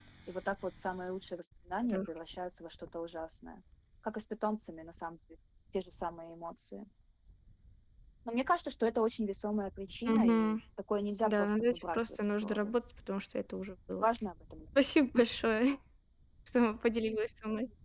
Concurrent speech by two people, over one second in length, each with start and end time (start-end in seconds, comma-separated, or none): 11.2-12.8